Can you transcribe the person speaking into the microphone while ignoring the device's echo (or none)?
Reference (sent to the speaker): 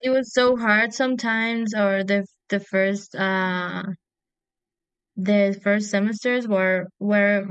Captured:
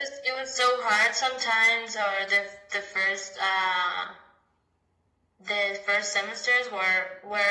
none